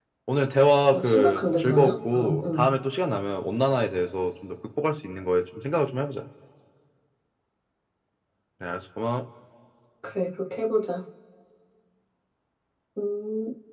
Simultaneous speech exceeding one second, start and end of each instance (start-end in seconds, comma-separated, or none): 0.9-2.7